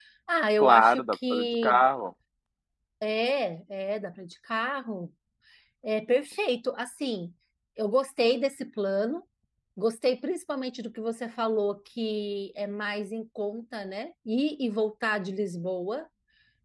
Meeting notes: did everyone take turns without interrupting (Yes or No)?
No